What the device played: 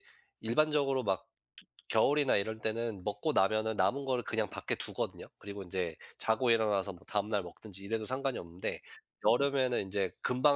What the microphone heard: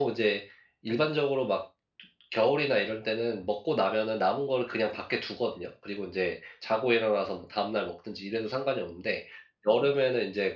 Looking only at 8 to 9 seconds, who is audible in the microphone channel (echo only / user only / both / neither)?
echo only